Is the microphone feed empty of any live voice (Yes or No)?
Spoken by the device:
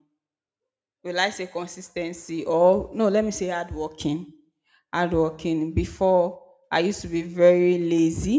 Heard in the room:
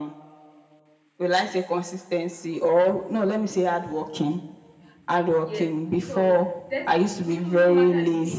No